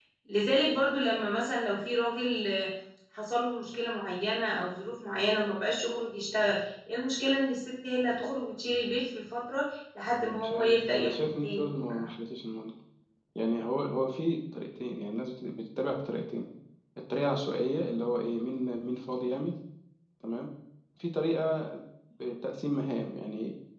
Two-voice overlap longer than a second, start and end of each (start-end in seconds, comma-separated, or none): 10.4-11.9